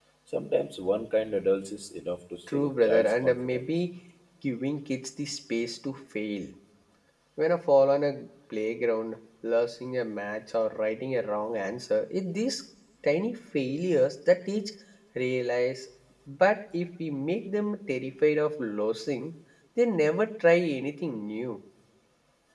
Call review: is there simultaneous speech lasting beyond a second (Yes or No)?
Yes